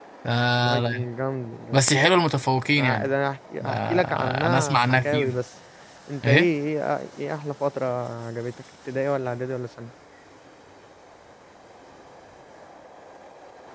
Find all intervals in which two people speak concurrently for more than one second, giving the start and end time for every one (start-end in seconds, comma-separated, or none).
3.6-5.4